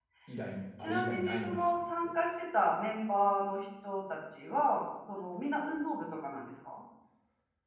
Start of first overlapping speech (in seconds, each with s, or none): 0.8 s